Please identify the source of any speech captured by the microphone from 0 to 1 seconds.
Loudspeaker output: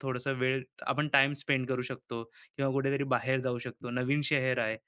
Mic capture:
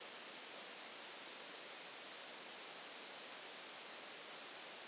neither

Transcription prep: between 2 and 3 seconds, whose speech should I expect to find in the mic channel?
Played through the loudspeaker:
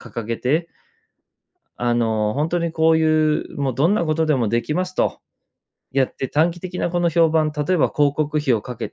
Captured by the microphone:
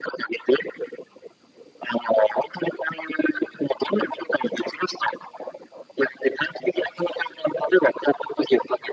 echo only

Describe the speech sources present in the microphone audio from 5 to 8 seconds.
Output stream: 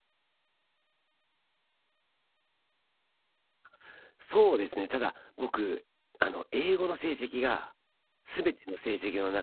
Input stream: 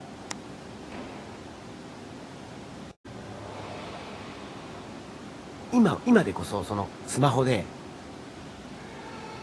user only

